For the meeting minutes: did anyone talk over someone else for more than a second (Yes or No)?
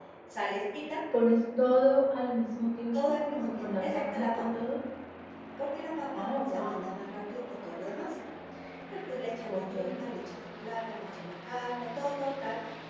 Yes